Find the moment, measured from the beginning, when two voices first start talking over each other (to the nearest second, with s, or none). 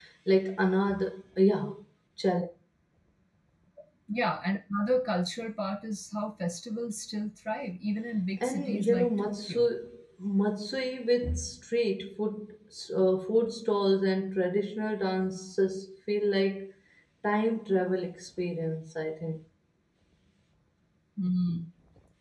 8 s